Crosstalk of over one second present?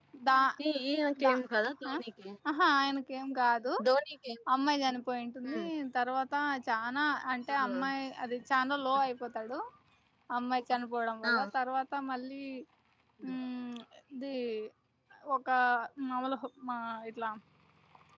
No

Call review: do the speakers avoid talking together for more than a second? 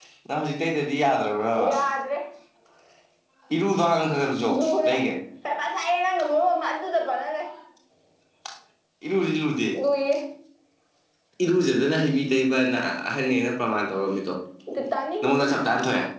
Yes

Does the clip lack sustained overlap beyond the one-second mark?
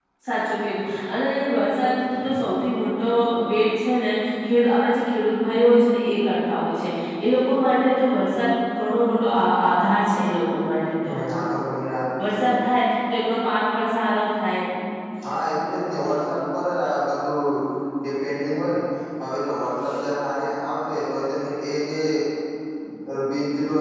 Yes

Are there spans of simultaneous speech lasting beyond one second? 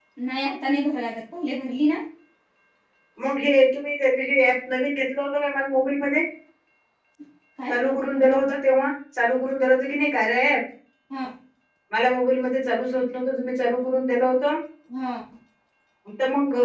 No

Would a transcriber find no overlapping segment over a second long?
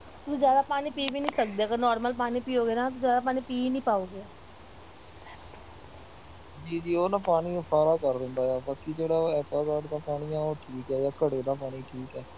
Yes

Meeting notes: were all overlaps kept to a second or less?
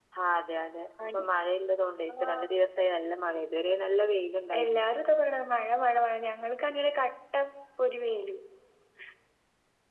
Yes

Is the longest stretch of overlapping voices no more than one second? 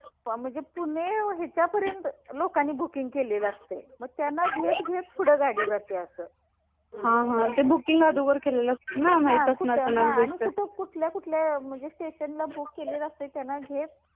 No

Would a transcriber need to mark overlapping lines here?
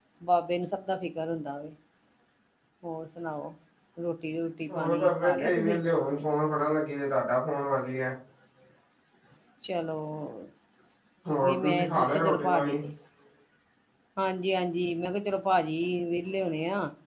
Yes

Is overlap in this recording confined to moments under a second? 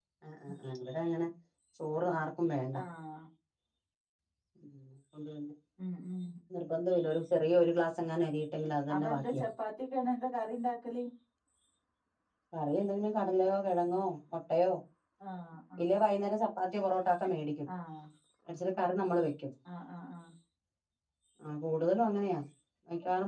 Yes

